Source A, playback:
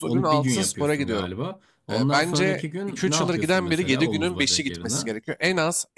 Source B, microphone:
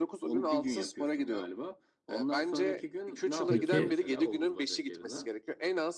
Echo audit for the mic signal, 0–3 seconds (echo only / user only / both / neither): echo only